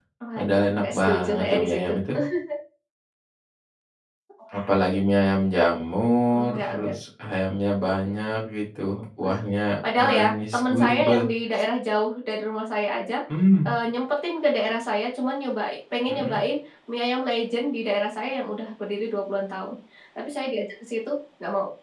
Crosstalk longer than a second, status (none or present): present